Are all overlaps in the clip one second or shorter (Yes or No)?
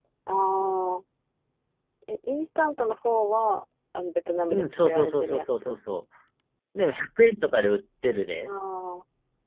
No